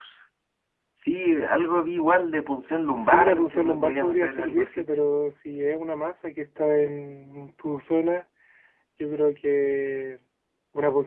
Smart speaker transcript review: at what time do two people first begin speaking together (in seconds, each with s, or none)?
3.0 s